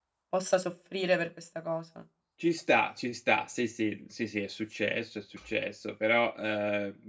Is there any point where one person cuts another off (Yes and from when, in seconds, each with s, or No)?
No